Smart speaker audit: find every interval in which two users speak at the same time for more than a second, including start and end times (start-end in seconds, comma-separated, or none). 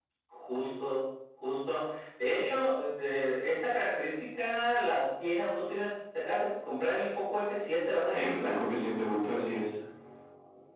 none